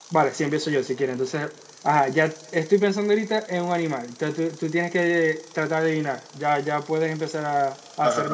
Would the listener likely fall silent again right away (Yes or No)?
No